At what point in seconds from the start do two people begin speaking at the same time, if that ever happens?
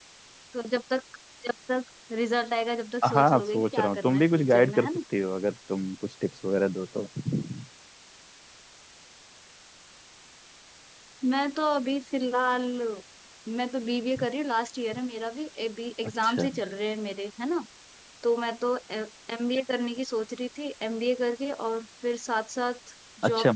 3.1 s

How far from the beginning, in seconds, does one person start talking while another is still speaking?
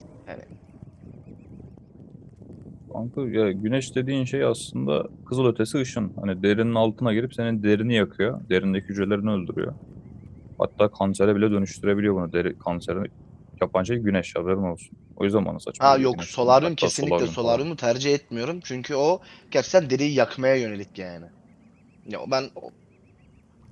15.8 s

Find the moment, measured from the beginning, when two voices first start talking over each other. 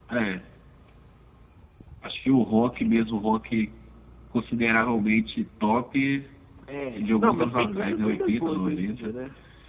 6.9 s

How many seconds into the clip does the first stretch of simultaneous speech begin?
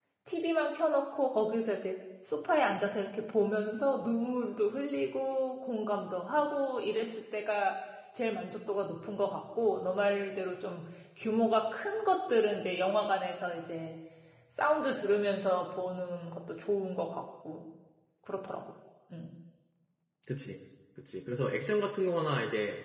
none

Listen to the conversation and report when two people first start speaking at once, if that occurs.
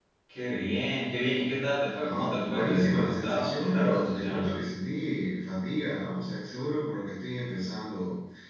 2.0 s

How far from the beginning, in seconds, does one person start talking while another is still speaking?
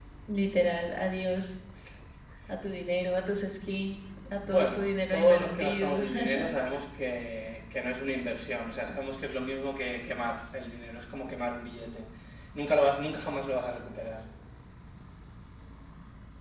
4.4 s

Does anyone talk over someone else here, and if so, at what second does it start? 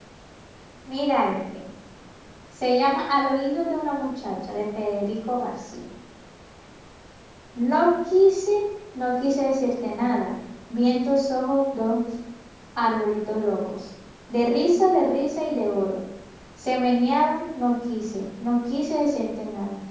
none

